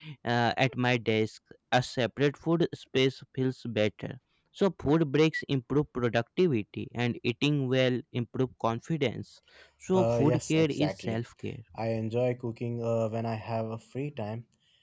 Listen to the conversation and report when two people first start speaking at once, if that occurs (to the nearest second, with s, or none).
10 s